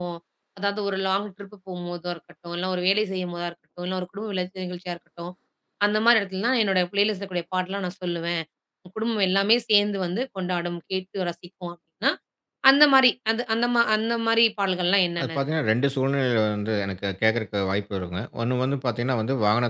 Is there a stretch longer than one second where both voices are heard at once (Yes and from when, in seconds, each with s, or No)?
No